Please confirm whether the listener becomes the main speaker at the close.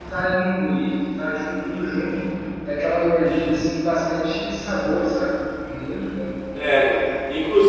Yes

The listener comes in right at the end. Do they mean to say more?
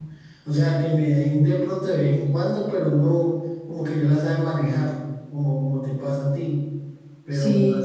No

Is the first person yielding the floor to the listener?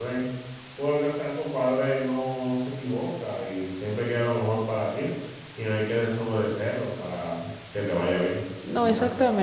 Yes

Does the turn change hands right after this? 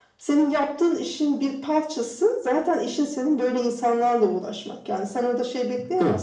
No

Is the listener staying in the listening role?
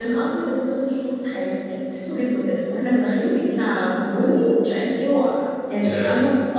Yes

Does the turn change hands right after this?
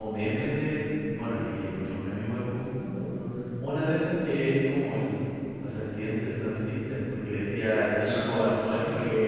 No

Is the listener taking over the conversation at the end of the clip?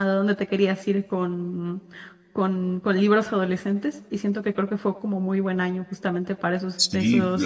Yes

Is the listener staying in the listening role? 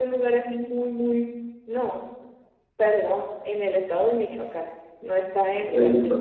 Yes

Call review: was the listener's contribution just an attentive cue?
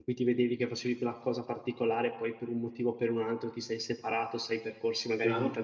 Yes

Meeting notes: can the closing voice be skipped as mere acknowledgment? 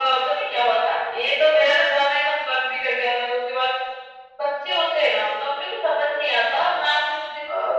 Yes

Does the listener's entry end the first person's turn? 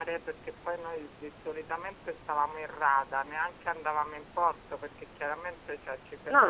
No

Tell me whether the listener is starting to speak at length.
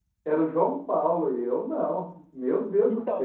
Yes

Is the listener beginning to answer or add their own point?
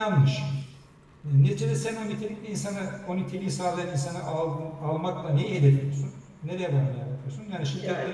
Yes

